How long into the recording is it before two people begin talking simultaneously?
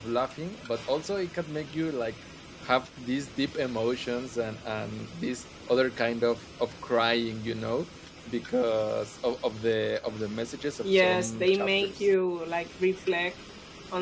11 s

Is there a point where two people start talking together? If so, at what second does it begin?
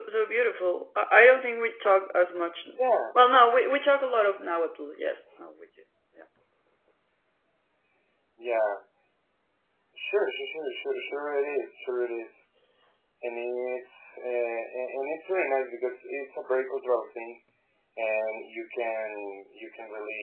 none

